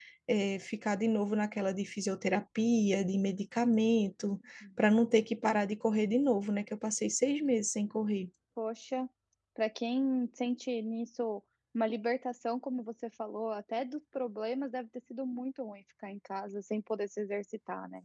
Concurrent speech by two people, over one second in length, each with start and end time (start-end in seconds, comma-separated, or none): none